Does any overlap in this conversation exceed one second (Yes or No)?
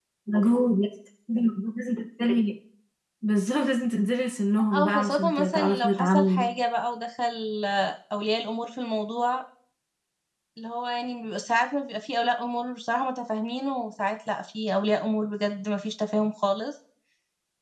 Yes